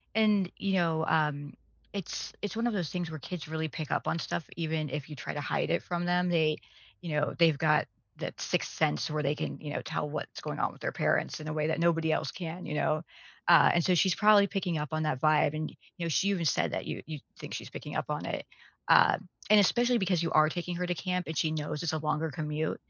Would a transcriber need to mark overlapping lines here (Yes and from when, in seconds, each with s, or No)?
No